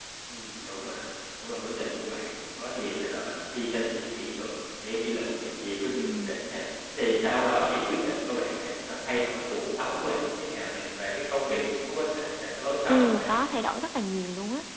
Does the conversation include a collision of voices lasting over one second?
No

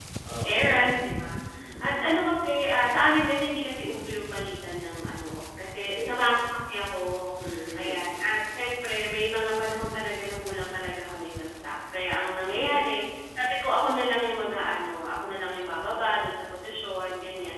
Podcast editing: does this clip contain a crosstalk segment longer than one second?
No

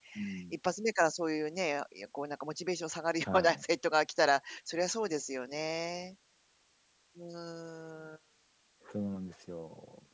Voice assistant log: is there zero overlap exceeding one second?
Yes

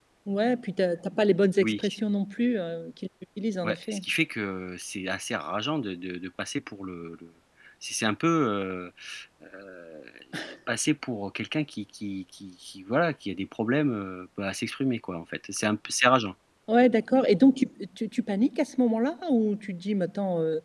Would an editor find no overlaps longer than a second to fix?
Yes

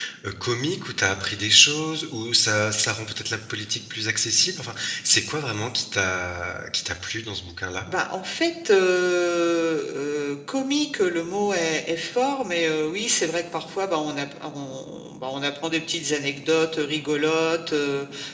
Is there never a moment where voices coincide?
Yes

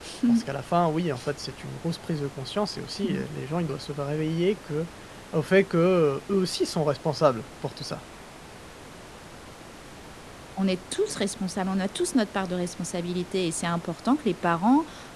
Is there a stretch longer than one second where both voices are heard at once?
No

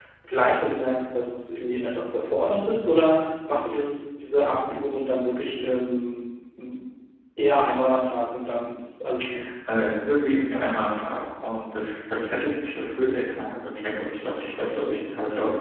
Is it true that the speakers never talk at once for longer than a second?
Yes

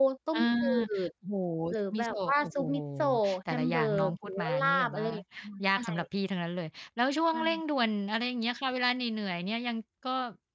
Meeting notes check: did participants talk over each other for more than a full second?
Yes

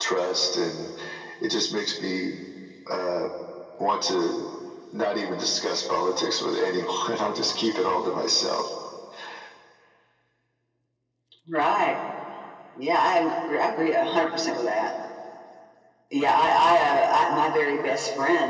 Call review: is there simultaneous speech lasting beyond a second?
No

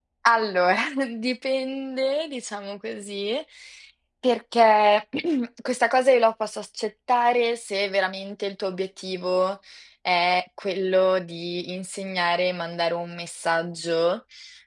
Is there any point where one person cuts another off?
No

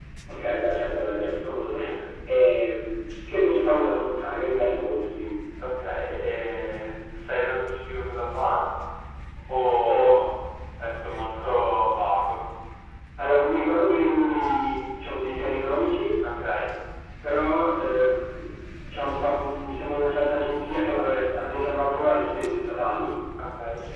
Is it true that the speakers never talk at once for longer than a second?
Yes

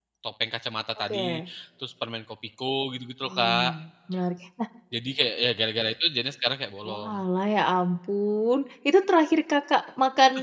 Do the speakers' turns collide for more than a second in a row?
No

